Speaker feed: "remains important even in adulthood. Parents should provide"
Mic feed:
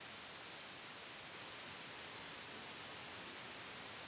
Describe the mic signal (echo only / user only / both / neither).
neither